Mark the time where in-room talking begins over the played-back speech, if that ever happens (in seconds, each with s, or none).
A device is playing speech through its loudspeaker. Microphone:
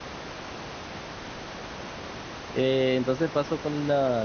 2.5 s